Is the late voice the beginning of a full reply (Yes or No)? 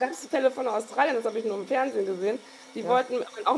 No